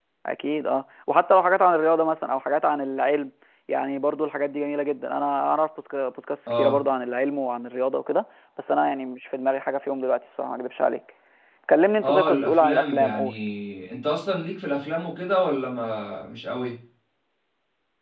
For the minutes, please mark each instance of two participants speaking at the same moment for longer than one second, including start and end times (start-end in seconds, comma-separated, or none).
12.0-13.3